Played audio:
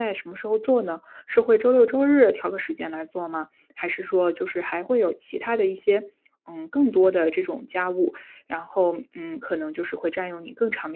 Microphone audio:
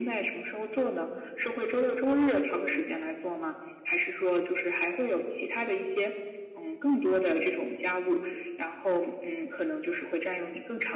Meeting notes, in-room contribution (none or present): none